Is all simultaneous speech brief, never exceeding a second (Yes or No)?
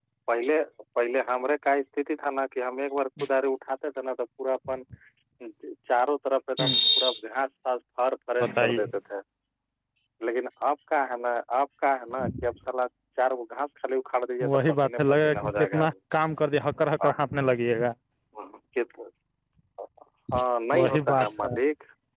No